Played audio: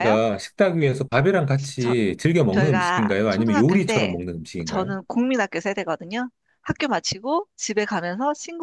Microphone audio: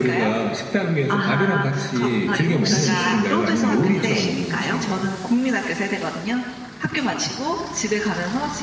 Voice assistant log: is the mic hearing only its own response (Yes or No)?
No